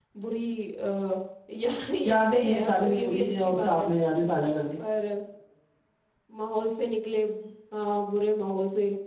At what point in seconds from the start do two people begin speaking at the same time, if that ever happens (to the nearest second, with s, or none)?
2 s